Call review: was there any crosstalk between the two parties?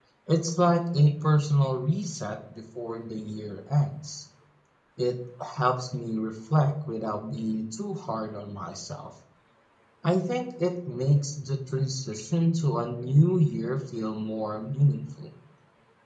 No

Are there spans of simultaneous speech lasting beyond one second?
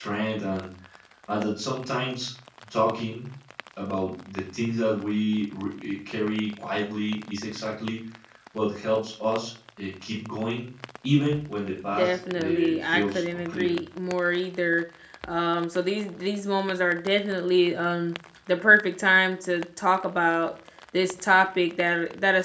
Yes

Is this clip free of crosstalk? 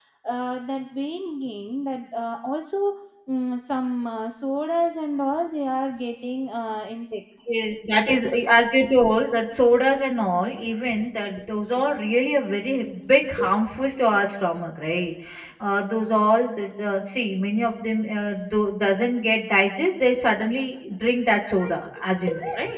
Yes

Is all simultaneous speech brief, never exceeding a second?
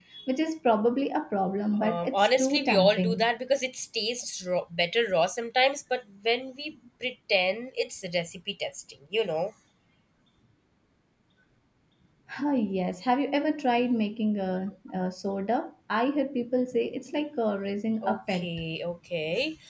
No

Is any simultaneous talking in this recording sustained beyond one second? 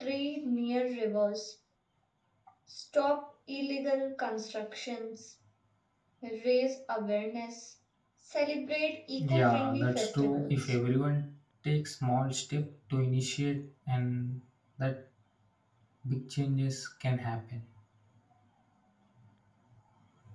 Yes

